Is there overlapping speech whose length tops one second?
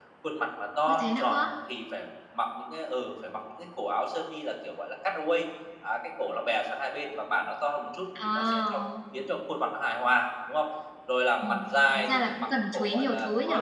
Yes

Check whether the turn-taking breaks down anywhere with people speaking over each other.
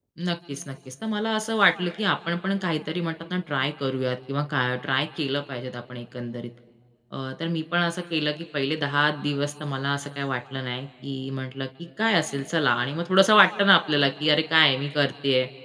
No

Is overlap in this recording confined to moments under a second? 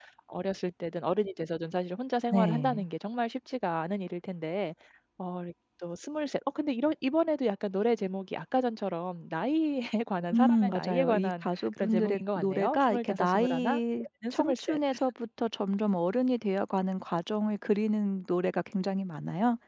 No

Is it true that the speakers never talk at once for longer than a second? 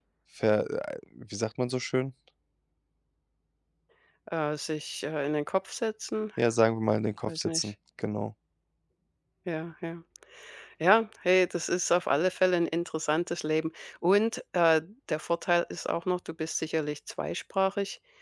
Yes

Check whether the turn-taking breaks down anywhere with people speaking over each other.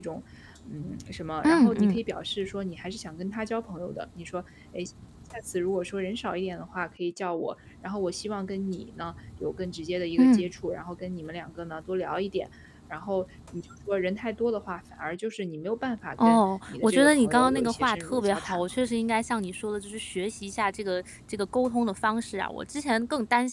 Yes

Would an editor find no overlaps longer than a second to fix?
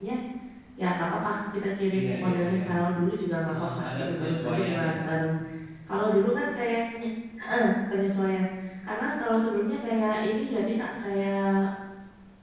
No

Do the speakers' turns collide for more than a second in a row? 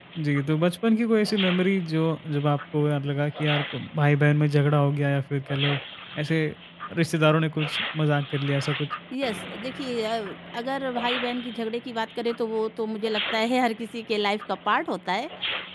No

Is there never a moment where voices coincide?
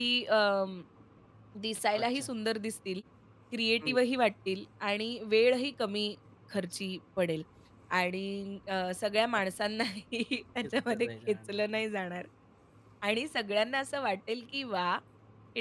No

